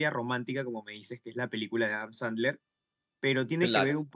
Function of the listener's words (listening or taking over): listening